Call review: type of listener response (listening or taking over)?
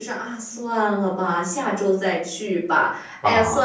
listening